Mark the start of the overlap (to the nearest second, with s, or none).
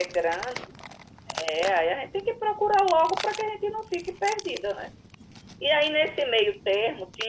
none